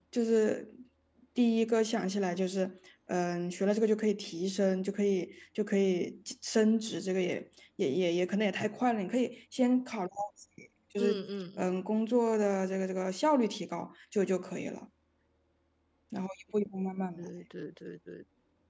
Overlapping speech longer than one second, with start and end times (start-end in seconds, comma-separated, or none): none